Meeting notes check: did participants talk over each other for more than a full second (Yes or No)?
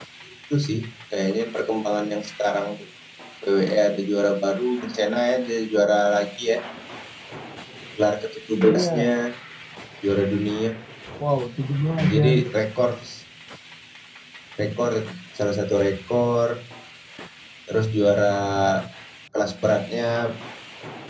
No